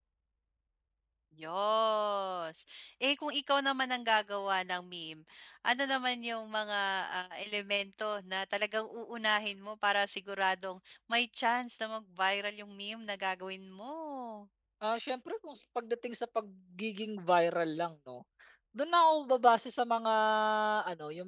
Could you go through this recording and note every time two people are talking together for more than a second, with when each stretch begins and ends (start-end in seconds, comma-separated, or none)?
none